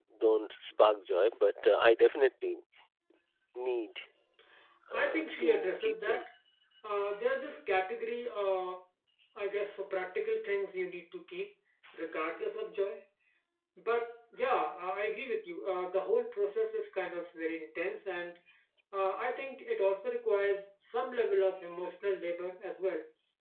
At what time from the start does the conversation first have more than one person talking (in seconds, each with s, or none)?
5.0 s